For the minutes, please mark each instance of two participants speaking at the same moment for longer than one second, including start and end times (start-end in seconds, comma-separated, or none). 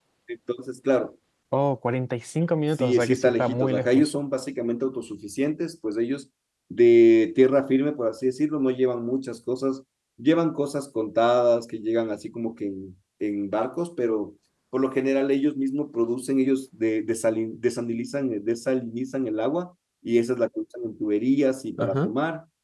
2.8-4.1